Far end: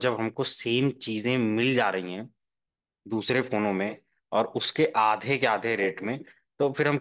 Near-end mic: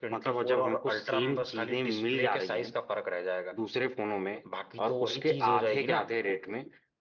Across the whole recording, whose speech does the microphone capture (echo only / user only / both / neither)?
both